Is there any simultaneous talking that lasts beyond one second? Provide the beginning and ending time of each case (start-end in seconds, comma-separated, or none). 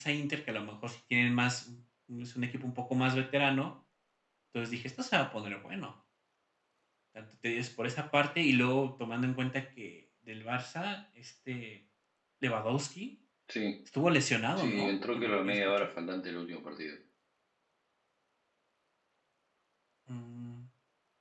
14.6-15.9